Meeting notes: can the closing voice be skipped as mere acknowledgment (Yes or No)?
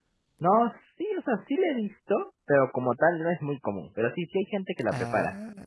Yes